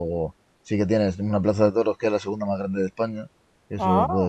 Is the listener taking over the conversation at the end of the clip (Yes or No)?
No